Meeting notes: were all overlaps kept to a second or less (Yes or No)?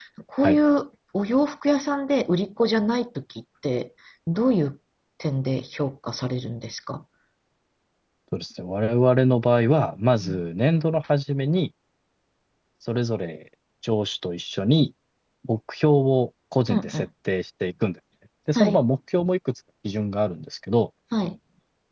Yes